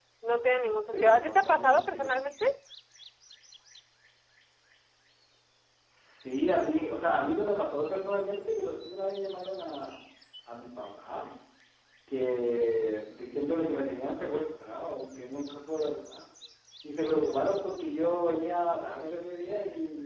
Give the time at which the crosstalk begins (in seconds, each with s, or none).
0.9 s